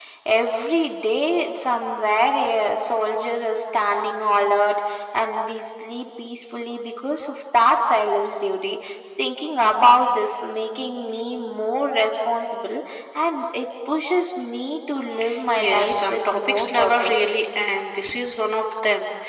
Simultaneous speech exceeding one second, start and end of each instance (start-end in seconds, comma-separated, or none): 15.6-17.3